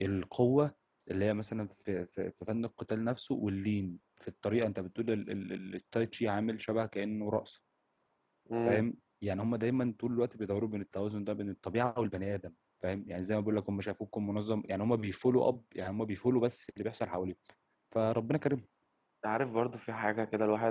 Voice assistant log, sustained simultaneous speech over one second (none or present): none